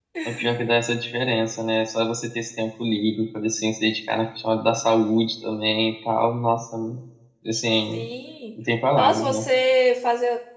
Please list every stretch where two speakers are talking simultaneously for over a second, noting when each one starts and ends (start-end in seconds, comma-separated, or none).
none